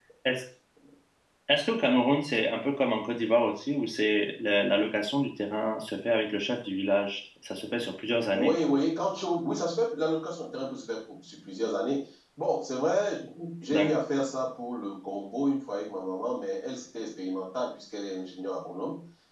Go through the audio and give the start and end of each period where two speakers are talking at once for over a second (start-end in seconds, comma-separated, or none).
none